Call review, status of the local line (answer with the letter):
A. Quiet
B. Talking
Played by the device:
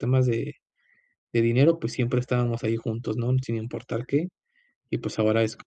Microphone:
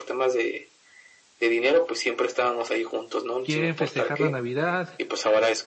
B